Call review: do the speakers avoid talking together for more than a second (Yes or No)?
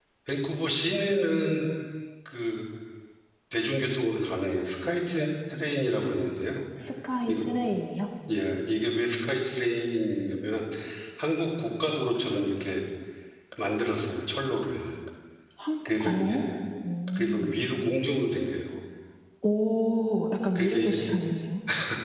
Yes